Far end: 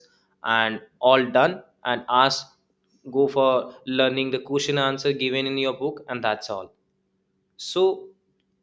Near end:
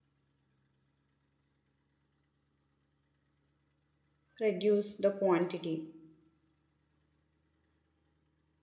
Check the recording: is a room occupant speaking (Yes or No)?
Yes